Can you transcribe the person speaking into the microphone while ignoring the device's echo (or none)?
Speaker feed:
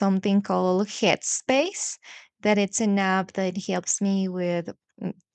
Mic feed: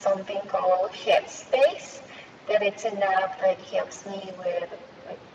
none